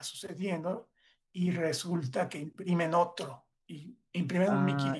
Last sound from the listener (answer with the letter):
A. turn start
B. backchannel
A